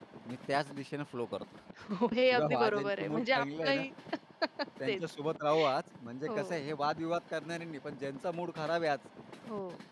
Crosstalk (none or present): present